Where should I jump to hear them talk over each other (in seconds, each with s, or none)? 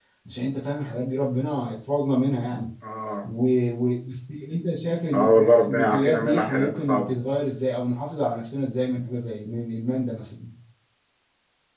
5.1 s